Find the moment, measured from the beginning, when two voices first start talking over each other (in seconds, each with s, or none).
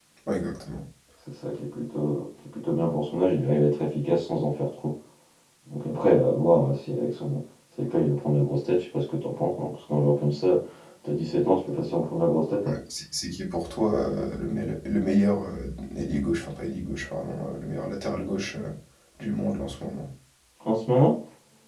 none